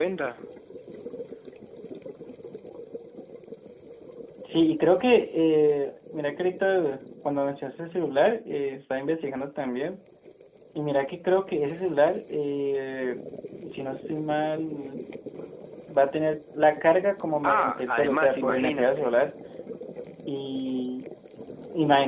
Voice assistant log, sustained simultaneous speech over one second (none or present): present